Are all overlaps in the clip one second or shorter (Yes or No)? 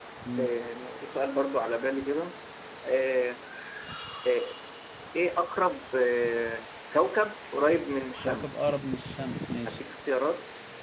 Yes